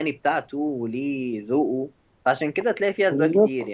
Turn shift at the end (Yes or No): No